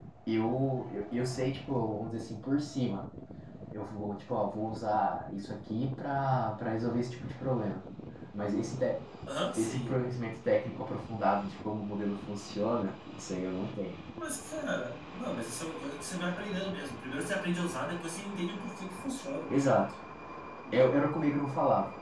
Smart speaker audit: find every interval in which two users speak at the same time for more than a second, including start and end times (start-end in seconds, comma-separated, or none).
none